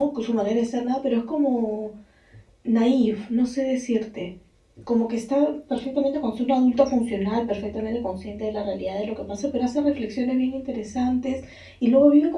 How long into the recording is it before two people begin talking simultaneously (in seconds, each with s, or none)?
none